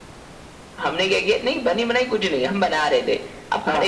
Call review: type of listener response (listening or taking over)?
listening